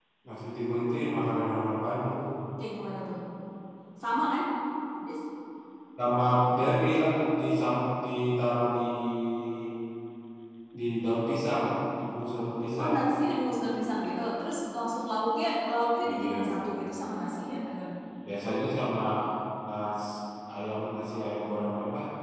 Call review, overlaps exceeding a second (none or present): none